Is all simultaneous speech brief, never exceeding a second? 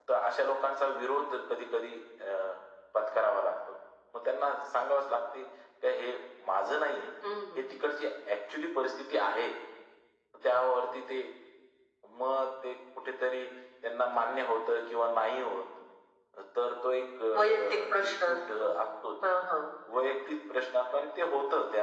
No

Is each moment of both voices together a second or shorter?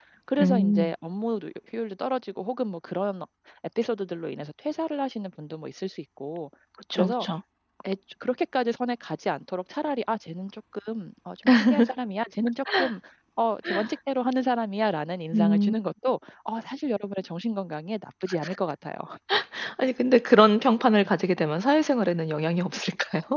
Yes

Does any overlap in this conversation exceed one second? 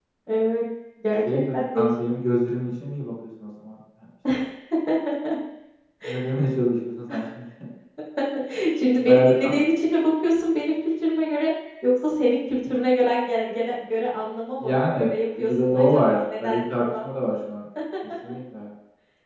Yes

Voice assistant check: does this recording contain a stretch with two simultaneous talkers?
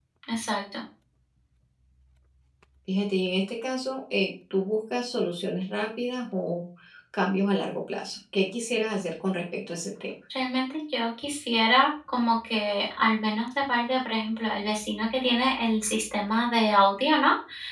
No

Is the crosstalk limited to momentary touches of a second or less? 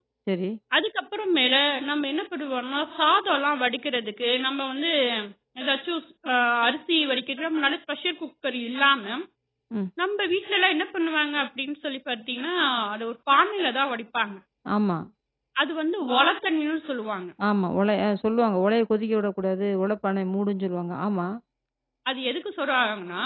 Yes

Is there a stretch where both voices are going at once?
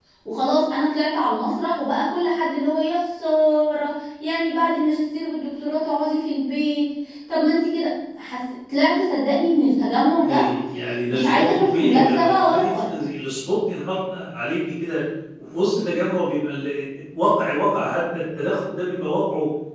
Yes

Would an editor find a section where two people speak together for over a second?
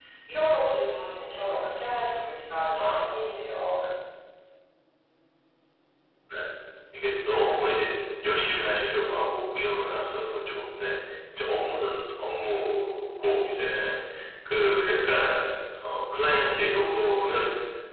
No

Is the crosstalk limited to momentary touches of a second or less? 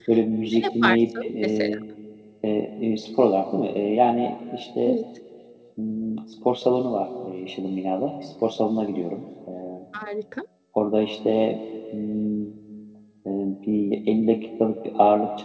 No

